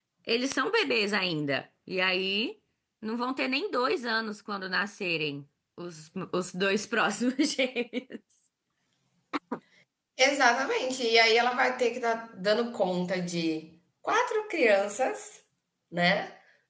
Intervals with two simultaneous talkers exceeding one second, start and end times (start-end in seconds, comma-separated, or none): none